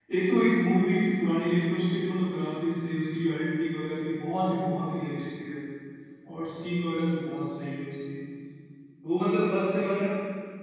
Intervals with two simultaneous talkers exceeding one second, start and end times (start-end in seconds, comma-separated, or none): none